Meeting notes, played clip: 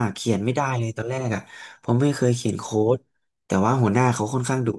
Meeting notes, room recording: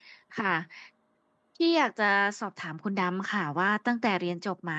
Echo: none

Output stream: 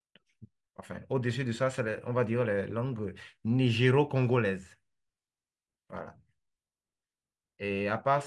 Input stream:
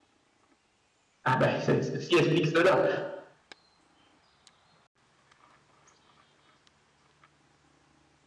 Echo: none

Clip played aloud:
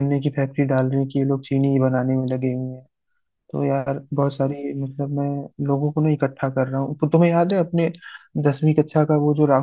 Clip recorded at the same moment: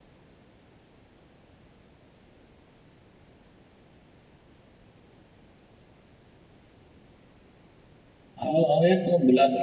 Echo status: none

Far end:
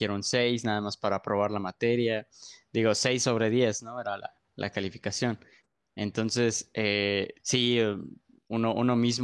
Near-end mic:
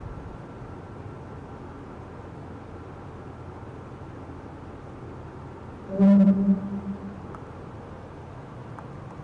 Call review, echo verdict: none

